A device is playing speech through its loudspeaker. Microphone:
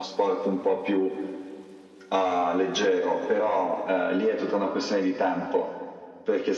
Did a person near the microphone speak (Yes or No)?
No